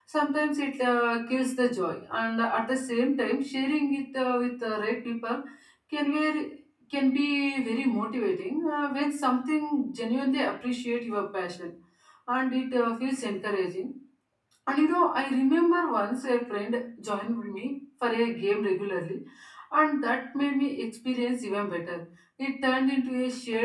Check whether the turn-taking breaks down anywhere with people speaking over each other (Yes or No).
No